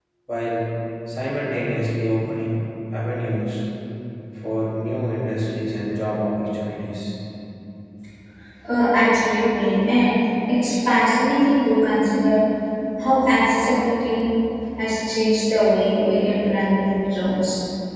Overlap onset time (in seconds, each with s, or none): none